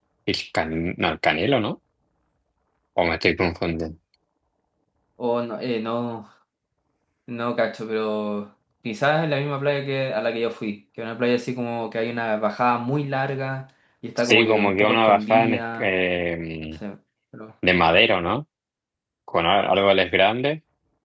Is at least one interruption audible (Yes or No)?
Yes